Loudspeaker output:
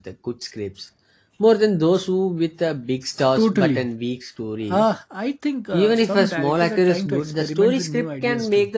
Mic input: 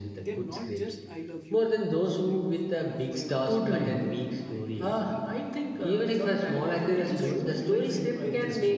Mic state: both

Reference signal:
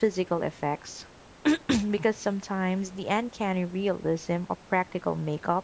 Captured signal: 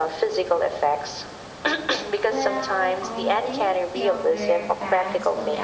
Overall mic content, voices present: both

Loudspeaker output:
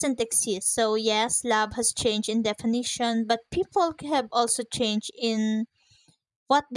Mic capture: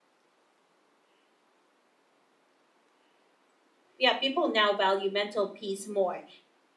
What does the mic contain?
user only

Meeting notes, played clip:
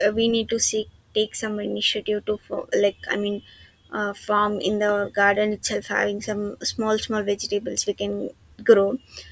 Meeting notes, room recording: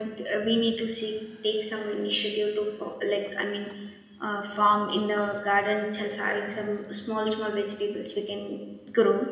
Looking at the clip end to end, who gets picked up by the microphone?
echo only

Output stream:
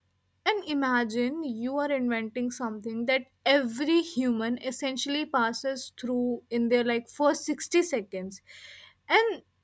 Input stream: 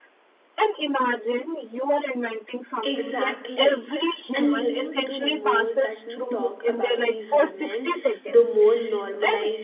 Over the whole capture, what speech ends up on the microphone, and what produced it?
both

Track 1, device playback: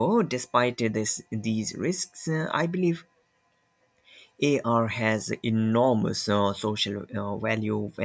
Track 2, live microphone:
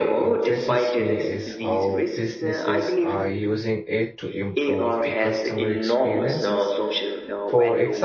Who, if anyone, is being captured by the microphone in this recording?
both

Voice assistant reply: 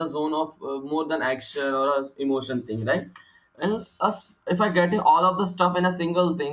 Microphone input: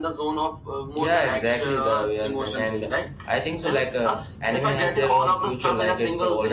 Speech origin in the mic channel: both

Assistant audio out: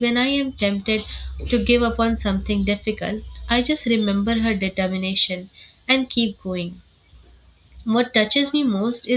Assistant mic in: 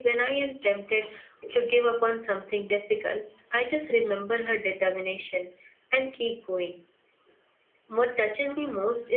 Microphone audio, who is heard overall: echo only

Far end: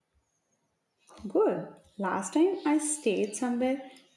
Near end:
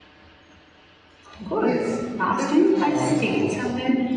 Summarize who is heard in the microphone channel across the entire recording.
both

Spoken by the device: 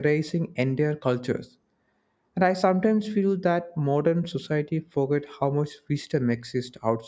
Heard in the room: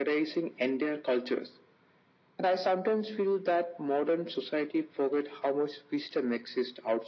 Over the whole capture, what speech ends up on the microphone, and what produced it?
echo only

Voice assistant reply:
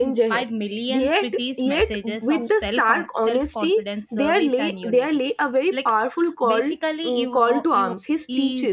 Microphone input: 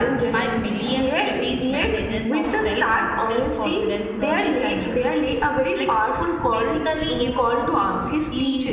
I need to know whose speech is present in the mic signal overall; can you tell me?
echo only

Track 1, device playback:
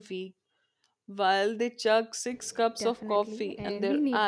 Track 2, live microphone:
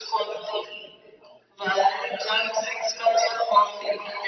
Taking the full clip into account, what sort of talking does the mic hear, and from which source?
echo only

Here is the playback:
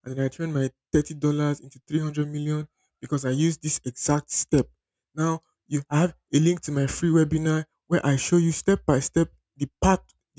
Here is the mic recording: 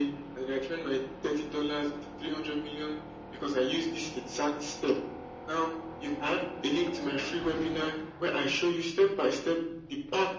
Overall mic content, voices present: echo only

